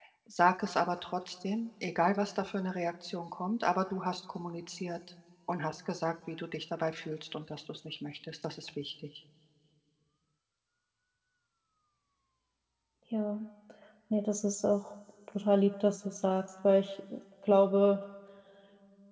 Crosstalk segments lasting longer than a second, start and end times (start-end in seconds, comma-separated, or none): none